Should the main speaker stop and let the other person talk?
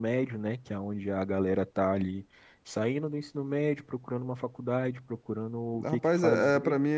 Yes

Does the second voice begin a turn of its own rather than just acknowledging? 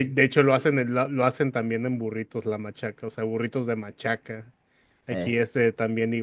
No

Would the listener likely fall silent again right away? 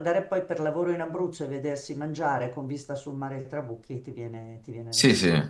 No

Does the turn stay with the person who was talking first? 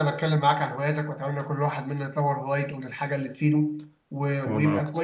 Yes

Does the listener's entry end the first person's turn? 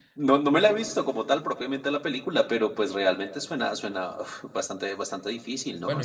Yes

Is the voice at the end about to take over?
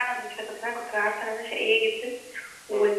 No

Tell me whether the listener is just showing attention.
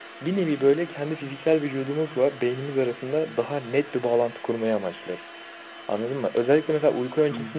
Yes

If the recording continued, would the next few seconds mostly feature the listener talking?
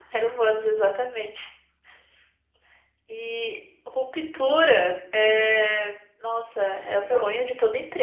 No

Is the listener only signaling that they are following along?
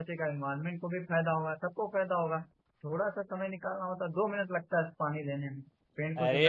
No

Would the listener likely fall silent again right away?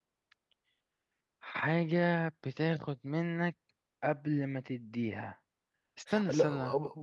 No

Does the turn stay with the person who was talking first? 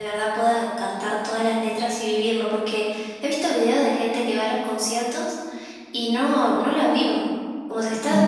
Yes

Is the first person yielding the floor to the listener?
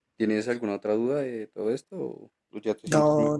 Yes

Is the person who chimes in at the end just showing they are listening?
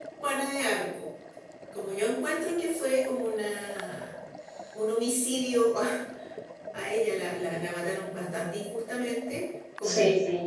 Yes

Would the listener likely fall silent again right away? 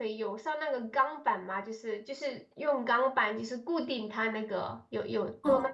No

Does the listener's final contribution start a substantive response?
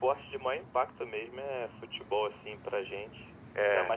No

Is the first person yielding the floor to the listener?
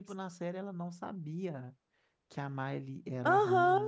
Yes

